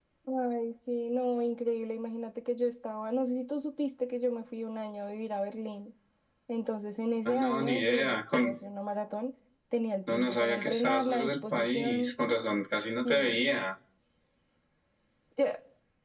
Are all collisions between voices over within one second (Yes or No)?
No